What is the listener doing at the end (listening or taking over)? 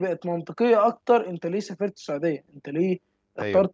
listening